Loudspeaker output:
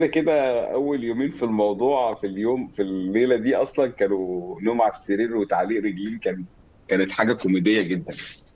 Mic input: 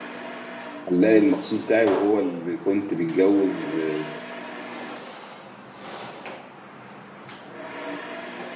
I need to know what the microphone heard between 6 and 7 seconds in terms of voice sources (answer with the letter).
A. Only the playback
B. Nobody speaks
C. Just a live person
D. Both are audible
B